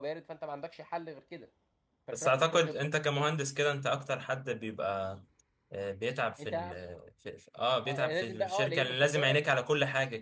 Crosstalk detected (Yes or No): Yes